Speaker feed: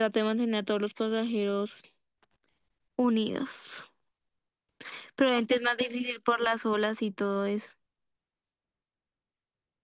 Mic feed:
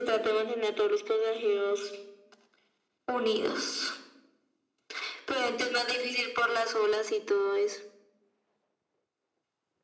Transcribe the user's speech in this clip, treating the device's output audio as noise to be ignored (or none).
none